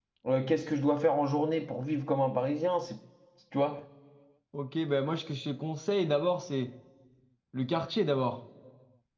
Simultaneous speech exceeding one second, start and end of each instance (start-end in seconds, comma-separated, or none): none